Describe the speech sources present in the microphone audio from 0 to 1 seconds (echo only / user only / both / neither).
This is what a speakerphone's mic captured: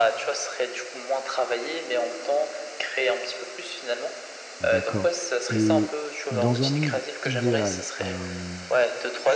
echo only